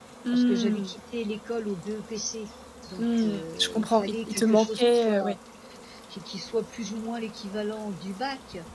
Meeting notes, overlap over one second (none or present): present